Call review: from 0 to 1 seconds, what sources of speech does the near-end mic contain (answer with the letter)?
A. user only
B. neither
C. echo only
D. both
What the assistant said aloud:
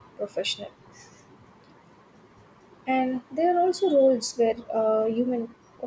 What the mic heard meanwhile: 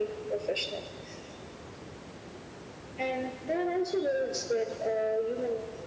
C